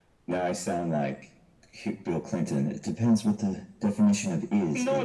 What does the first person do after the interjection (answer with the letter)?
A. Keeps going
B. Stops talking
B